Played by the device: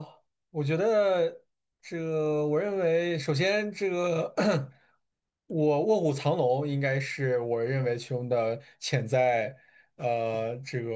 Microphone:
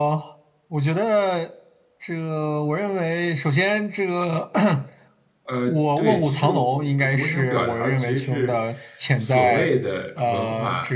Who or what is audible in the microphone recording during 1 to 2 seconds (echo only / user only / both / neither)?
echo only